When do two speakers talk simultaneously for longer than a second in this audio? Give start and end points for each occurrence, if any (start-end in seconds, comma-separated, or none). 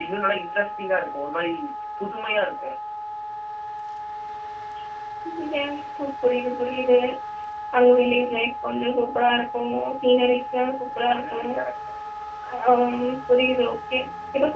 none